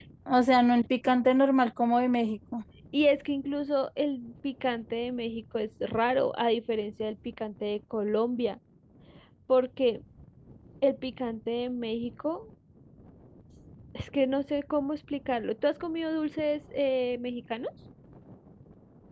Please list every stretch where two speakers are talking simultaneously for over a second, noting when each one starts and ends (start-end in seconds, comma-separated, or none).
none